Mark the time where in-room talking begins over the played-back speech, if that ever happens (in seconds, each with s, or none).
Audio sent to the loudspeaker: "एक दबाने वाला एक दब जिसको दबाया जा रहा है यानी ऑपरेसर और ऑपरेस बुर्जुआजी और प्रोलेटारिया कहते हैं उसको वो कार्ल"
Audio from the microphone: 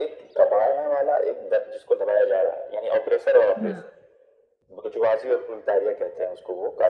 3.6 s